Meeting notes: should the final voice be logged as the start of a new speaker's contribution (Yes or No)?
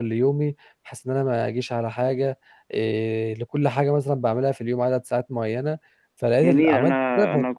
Yes